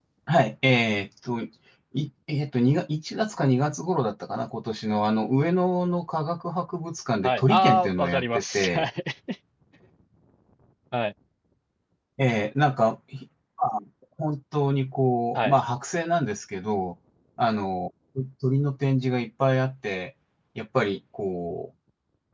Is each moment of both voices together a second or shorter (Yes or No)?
No